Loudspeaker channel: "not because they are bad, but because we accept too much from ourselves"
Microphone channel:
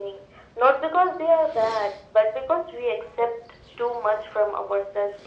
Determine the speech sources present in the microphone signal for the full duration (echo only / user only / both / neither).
echo only